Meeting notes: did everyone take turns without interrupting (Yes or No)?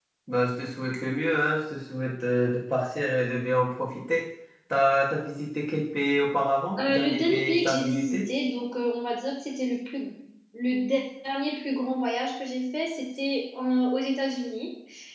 No